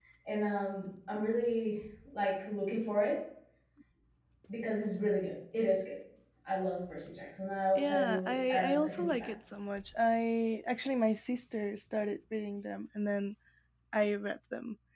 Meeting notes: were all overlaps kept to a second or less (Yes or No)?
No